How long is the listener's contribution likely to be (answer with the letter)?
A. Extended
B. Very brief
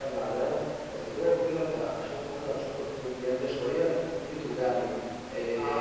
A